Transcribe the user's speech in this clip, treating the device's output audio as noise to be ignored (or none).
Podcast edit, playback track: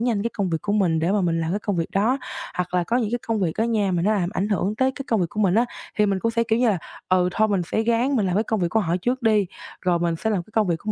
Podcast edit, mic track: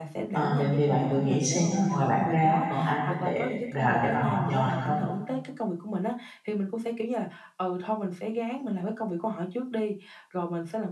À, vậy thì bạn thử nghĩ xem á ngoài bạn ra còn ai có thể đà để mà họ nhờ được không?